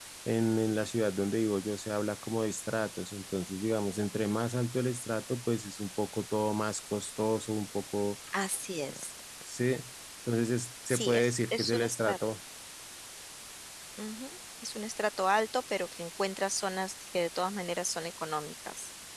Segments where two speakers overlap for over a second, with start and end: 10.9-12.2

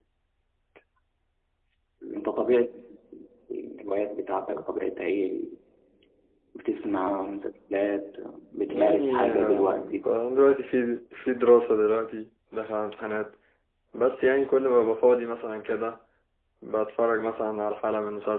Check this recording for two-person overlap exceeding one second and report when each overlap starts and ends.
8.7-10.0

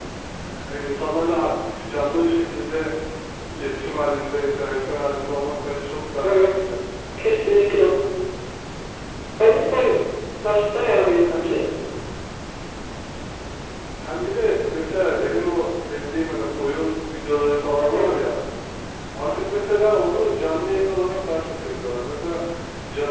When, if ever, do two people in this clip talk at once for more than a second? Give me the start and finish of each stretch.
none

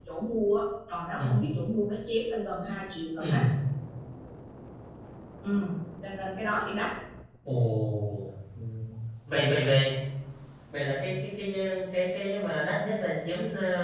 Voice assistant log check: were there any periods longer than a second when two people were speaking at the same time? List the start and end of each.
none

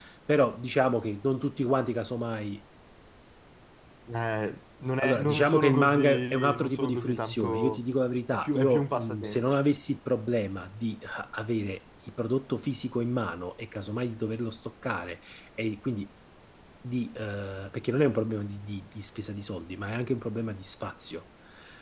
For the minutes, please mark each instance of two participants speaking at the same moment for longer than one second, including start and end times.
5.0-7.8, 8.3-9.5

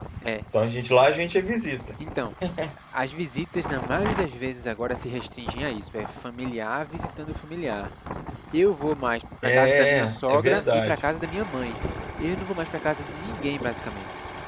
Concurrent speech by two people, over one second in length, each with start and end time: 9.4-11.0

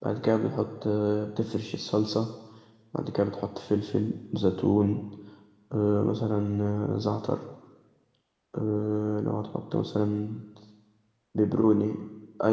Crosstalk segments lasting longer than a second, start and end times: none

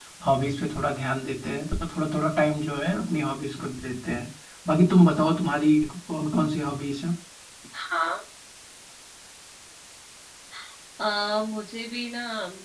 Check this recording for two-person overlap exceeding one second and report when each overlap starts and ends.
none

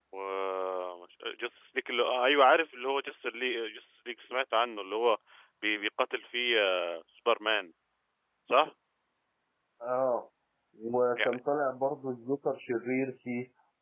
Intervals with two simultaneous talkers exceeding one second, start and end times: none

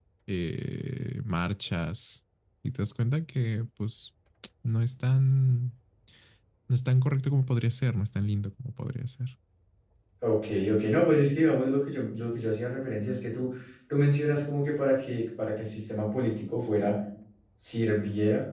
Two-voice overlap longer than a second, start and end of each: none

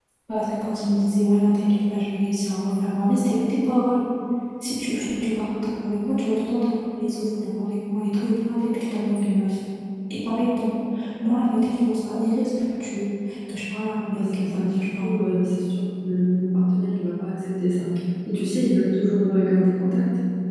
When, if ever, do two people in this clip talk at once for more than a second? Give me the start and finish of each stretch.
14.1-15.4

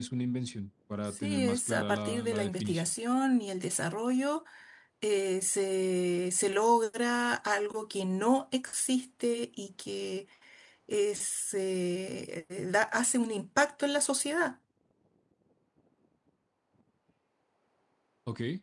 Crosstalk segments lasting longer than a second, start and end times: 1.1-2.9

